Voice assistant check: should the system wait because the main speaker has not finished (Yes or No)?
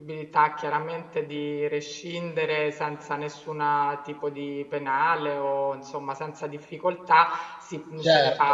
Yes